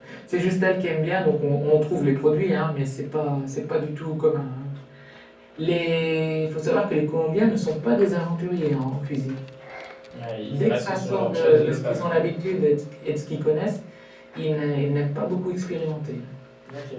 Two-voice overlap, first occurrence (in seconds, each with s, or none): 10.5 s